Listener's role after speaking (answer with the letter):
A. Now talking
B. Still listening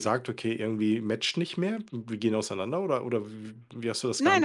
A